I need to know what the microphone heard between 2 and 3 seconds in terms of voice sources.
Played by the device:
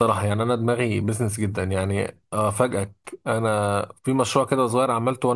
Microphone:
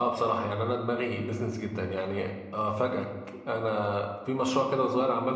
echo only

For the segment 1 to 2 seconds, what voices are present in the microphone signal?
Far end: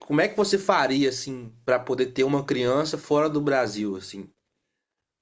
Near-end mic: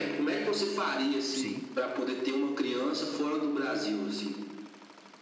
both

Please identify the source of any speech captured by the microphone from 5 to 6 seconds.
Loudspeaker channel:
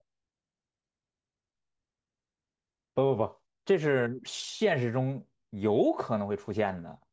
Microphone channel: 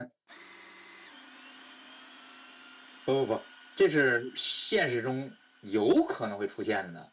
echo only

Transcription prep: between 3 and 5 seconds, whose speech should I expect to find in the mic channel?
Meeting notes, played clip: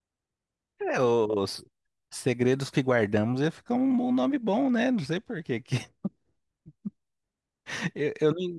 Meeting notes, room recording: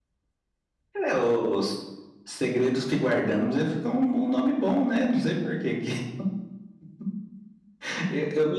echo only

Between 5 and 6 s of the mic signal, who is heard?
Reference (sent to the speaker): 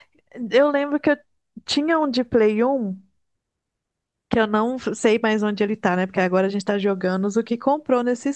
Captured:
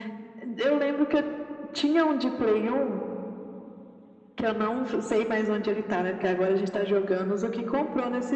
echo only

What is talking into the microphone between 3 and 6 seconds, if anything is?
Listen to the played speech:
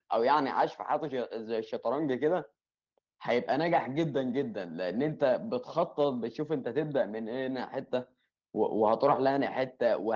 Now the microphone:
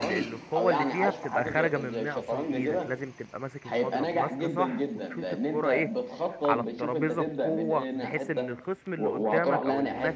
both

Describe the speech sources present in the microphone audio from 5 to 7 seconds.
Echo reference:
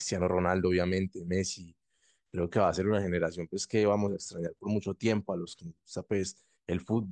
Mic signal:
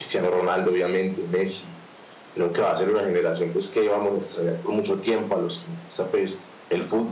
echo only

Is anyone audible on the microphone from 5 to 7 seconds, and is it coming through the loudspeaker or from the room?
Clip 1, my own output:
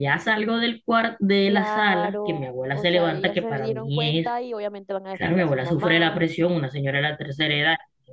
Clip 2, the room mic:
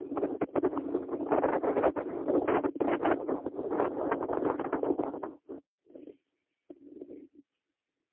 neither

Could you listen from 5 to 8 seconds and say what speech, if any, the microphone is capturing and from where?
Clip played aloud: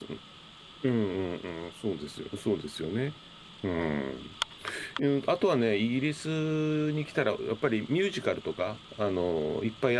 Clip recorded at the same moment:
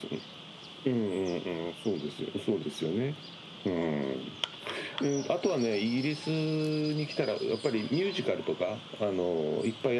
echo only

